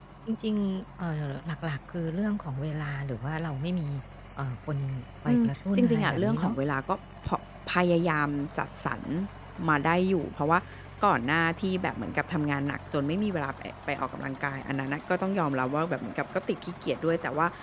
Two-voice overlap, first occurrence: 5.3 s

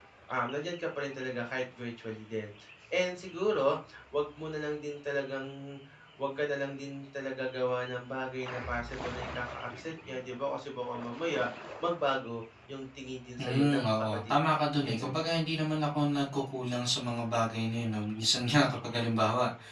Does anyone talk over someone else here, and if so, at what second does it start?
13.4 s

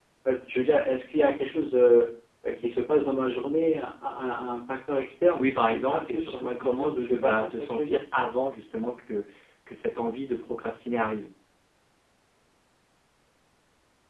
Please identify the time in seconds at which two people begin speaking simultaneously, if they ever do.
5.4 s

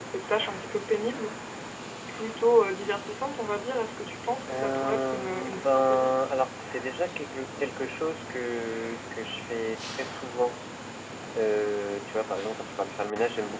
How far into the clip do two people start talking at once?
4.4 s

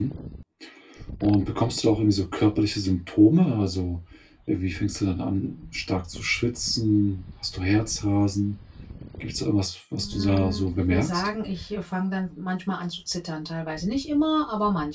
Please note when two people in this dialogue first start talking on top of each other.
9.9 s

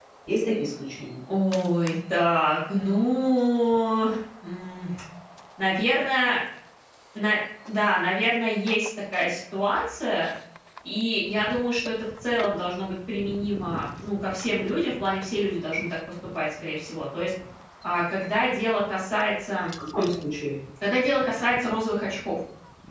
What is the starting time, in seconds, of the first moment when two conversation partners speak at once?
none

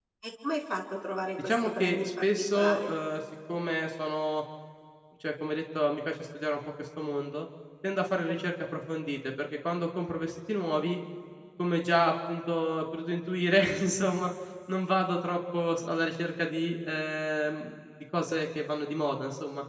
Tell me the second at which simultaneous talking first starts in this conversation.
1.4 s

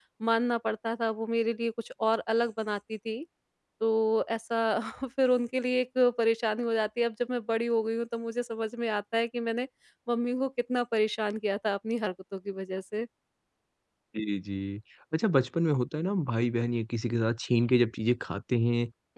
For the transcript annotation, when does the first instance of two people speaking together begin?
none

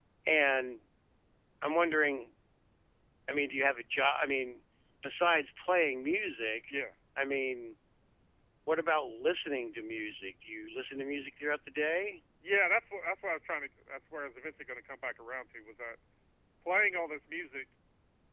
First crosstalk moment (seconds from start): none

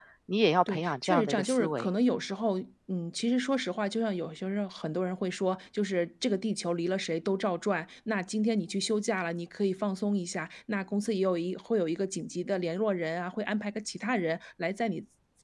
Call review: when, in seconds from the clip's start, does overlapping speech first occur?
0.7 s

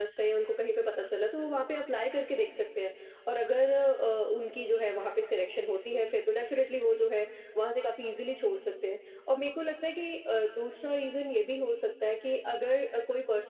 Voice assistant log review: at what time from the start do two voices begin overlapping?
none

